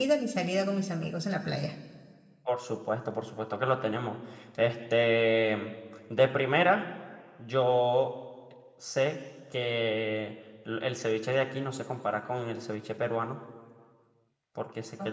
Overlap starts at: none

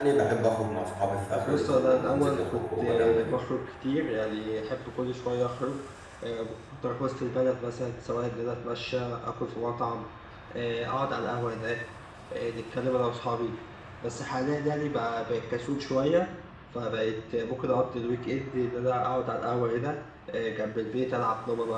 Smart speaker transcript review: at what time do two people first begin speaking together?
1.3 s

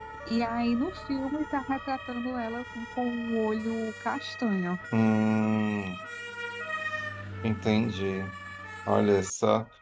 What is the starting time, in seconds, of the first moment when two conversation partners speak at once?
none

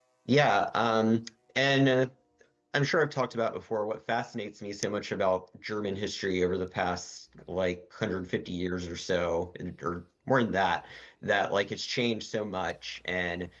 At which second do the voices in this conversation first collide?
none

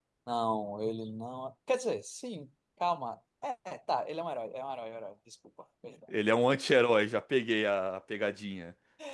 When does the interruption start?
none

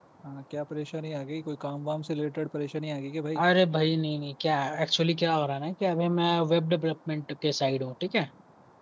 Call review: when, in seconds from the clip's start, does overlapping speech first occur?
none

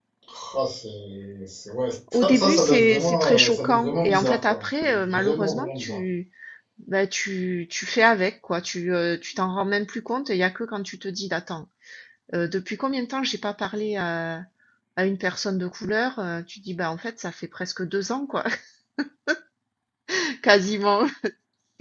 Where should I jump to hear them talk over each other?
2.1 s

